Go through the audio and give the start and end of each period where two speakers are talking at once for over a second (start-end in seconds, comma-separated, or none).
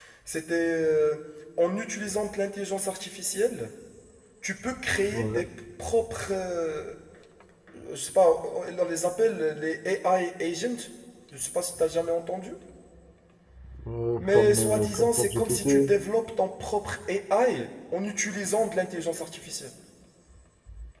14.2-15.9